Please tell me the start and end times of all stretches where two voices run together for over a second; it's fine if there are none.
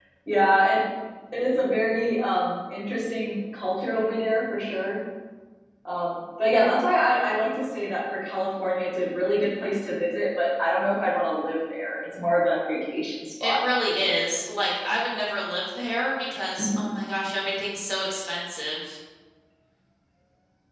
none

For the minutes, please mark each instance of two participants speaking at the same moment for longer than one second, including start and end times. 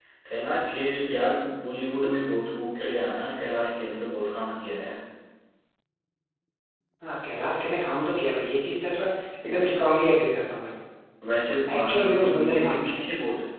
11.7-13.0

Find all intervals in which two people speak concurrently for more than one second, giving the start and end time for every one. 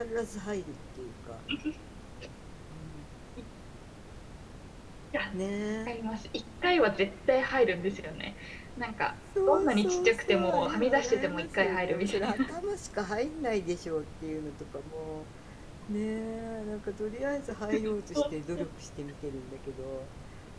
9.5-12.5

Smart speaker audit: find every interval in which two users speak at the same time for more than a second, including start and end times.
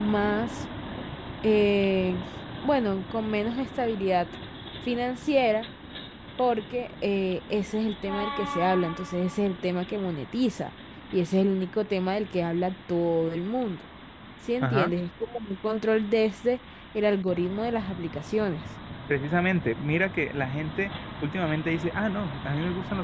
none

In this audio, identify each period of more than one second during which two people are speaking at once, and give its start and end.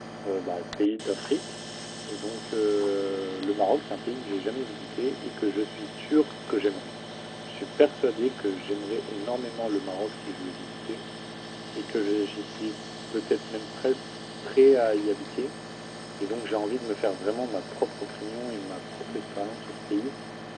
none

